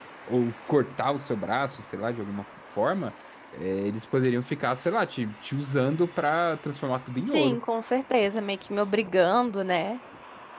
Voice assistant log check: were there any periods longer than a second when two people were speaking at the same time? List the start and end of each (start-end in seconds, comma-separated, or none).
none